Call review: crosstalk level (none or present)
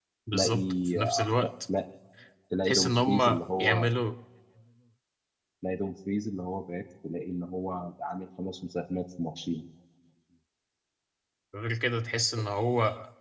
present